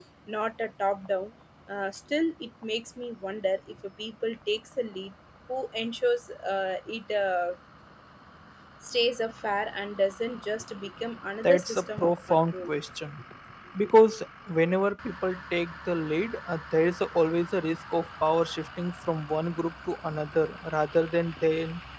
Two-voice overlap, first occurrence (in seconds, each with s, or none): 11.4 s